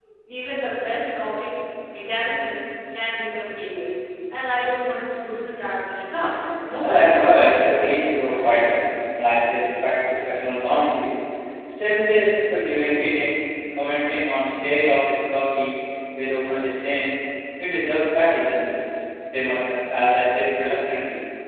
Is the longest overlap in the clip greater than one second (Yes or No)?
Yes